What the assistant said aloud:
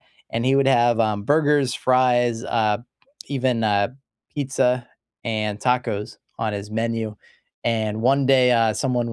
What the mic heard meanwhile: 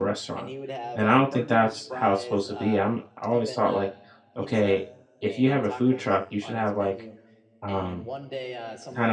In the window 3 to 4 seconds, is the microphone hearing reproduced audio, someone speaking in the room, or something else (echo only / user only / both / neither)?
both